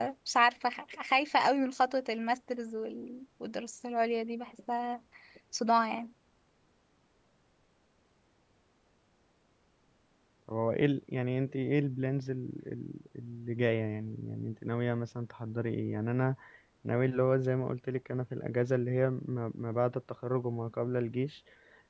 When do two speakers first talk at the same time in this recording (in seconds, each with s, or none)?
none